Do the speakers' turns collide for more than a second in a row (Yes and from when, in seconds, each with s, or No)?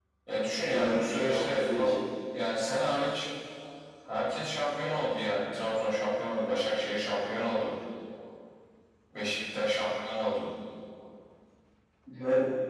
Yes, from 0.7 s